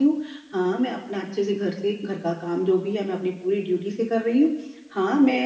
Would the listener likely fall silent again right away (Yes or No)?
Yes